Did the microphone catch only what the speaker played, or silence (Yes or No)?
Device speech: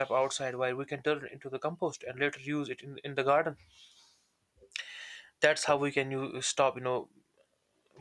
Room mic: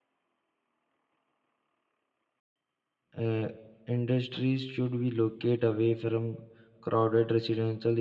No